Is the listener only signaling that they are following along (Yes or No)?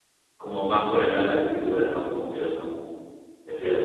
Yes